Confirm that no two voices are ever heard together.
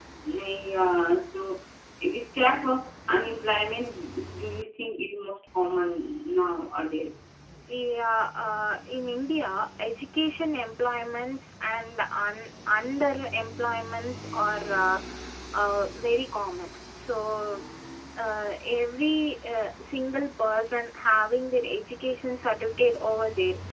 Yes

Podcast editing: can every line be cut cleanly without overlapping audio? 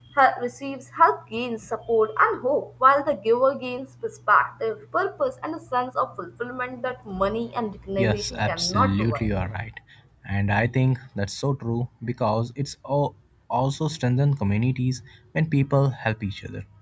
No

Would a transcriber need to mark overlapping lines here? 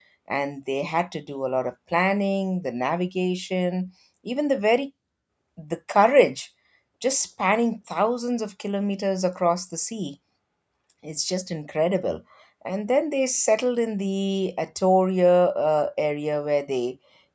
No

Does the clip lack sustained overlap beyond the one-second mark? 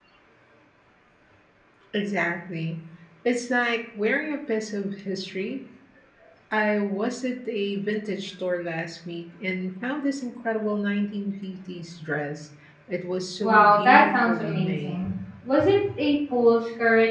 No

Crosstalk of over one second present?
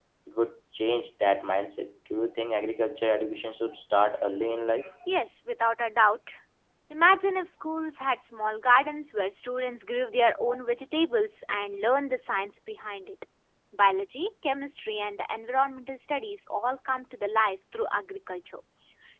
No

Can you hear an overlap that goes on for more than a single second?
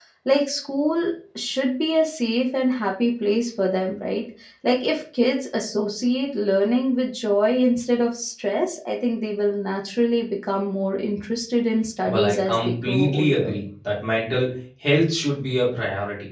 Yes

